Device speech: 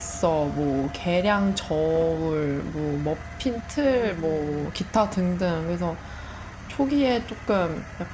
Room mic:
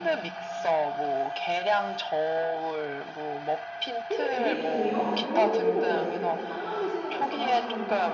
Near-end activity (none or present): present